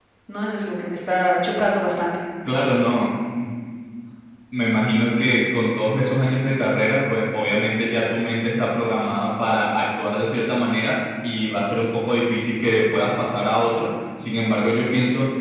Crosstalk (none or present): none